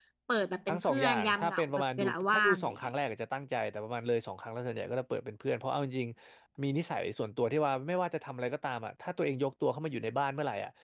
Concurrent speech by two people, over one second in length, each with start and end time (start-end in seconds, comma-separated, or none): 0.7-2.8